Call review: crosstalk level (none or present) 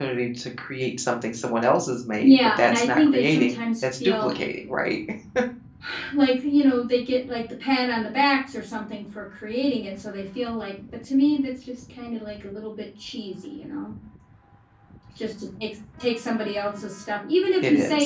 present